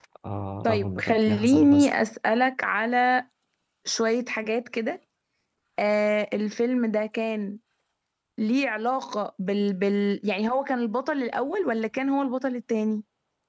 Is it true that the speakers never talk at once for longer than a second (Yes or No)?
No